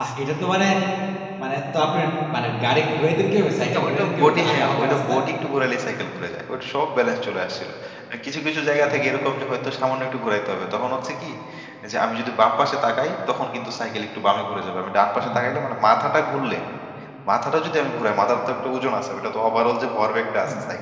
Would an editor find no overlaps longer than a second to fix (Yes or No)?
No